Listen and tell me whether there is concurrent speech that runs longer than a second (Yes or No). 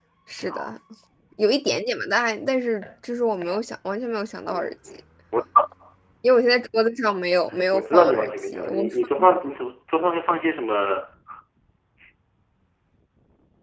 Yes